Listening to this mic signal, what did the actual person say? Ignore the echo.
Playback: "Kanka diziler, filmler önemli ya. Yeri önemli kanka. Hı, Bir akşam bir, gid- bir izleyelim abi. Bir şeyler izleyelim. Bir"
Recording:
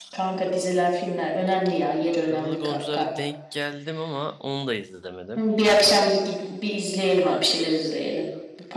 Kızıl Goncalara denk geldim ama onu da izlemedim.

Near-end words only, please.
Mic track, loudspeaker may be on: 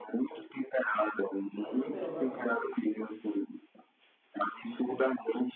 Mas eu bebo mesmo assim.

